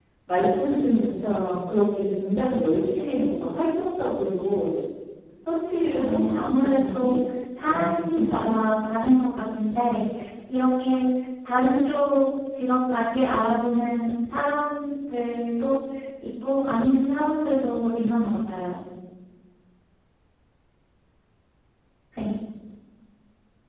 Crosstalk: present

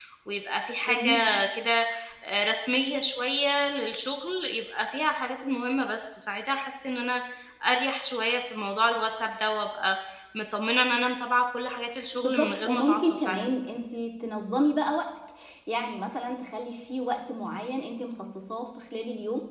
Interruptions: present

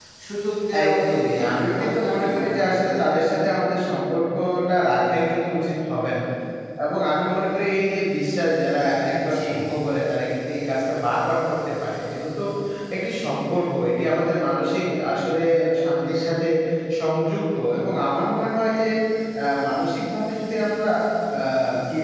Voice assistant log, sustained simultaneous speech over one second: present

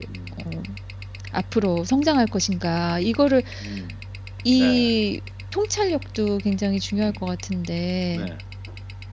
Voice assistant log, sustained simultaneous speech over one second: none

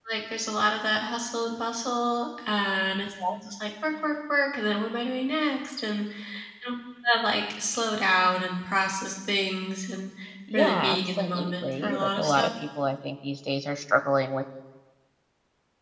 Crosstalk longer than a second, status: present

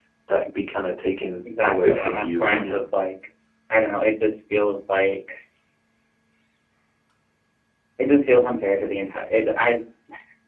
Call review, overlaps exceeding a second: present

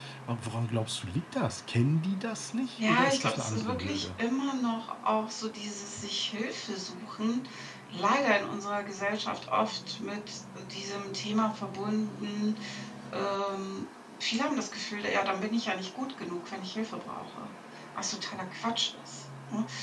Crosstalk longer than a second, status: present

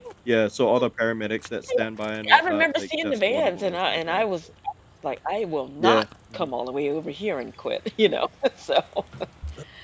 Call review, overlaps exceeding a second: present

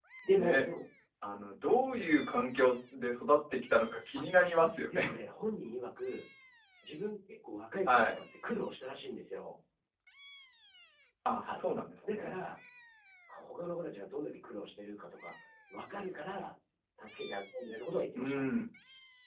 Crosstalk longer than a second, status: none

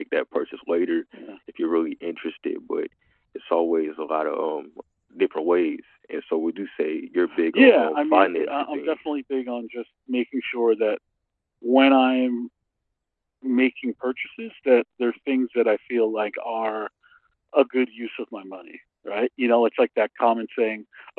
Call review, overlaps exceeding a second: present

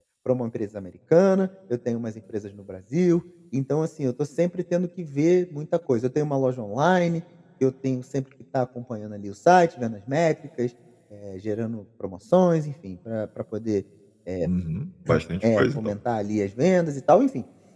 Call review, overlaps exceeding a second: none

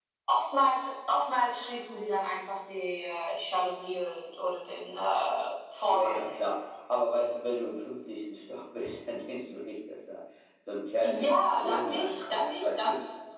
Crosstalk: present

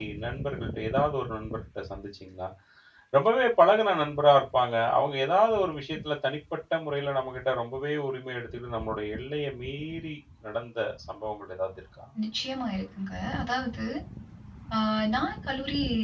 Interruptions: none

